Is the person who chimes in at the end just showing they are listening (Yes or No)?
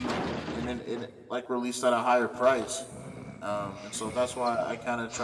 Yes